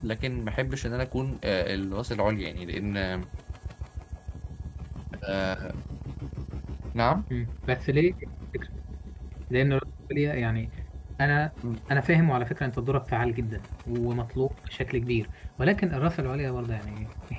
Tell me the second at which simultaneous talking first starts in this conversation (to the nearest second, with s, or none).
none